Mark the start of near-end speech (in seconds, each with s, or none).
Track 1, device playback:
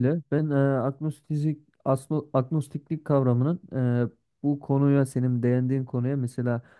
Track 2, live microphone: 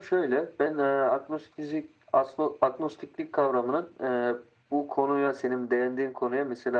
none